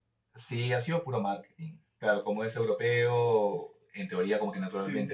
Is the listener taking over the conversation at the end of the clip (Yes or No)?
No